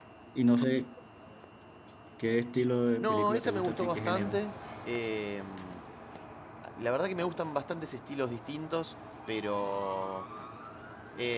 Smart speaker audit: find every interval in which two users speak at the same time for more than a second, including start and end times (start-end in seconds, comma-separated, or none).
3.0-4.4